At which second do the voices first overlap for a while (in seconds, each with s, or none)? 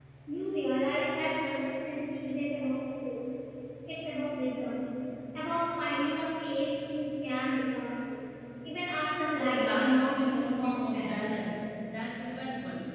9.3 s